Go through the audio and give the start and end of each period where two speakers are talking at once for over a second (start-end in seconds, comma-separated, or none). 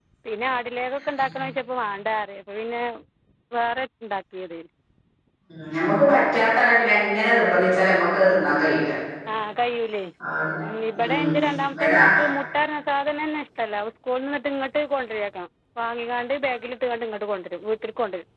none